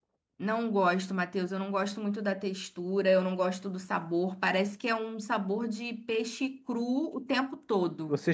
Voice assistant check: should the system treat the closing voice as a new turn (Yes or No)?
Yes